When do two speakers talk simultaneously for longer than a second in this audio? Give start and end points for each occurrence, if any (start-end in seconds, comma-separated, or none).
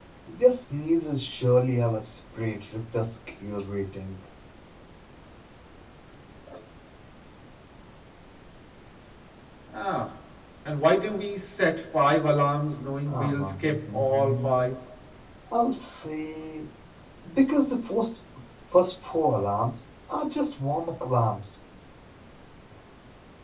13.1-14.7